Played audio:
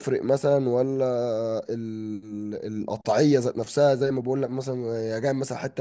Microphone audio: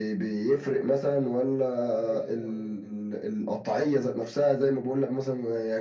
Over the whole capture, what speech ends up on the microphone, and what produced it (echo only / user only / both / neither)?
both